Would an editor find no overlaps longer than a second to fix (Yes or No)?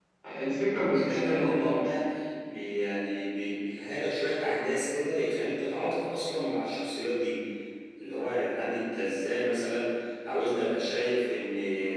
No